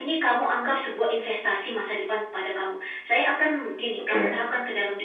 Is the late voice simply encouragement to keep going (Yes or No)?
Yes